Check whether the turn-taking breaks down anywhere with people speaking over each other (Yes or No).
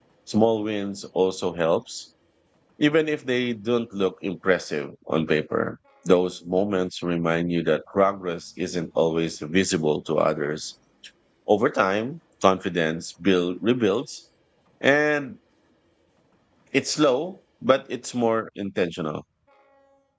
No